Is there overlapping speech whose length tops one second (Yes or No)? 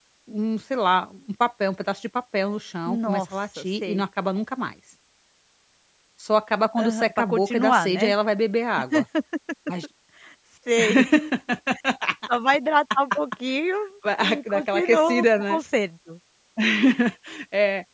Yes